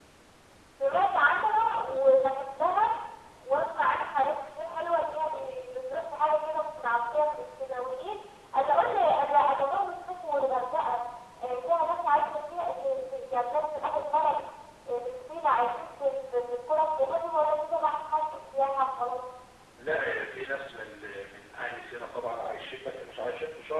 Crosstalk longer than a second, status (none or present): none